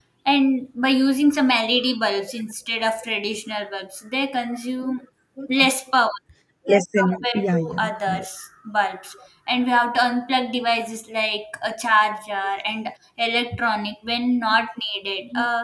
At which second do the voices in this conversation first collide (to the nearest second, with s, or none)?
7 s